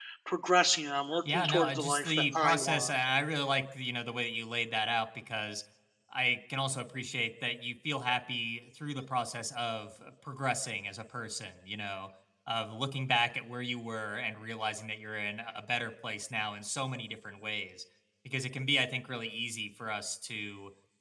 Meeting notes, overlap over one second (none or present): present